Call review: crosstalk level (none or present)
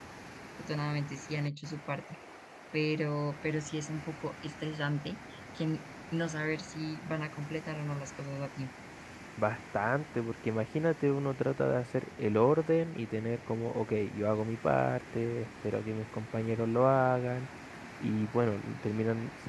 none